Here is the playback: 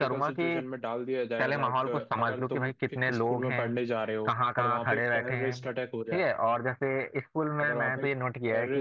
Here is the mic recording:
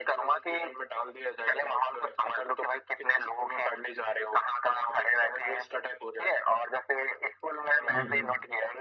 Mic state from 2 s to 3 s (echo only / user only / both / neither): echo only